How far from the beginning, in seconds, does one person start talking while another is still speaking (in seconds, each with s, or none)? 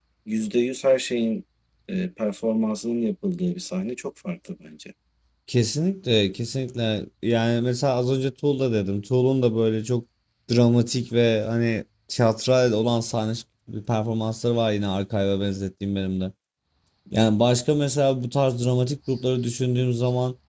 none